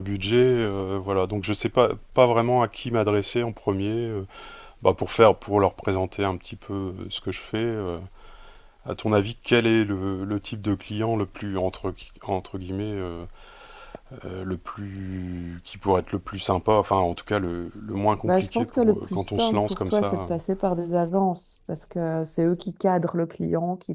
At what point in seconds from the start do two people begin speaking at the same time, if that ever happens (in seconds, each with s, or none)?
18.2 s